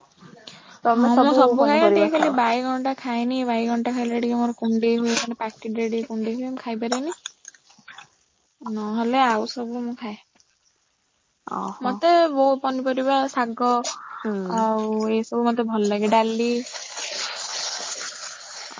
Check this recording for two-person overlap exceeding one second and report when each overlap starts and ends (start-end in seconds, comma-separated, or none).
1.0-2.4